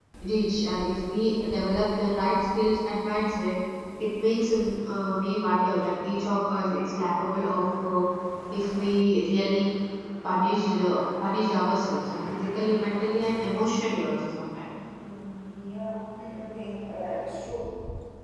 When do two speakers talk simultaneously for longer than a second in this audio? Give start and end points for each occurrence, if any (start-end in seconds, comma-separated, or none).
none